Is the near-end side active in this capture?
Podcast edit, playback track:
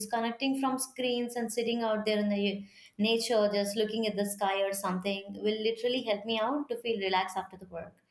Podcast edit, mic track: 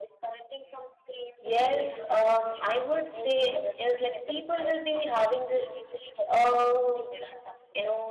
Yes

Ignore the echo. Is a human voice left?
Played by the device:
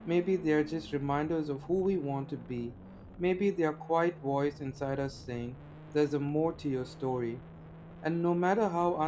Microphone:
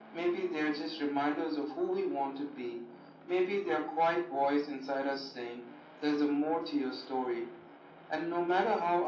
No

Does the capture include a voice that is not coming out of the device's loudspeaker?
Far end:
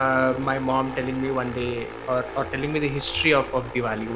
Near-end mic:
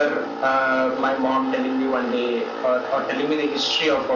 No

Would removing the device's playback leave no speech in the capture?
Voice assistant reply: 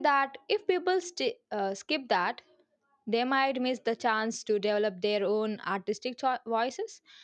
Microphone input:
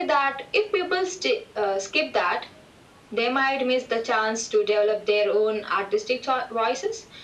Yes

